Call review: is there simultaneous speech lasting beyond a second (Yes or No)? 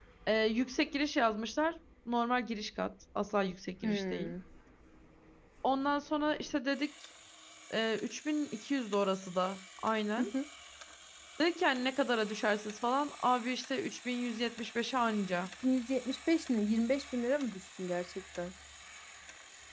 No